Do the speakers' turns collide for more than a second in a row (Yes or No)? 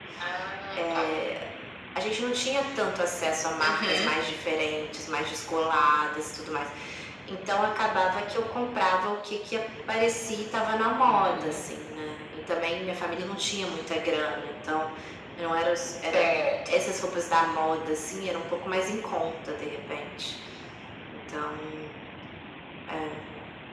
No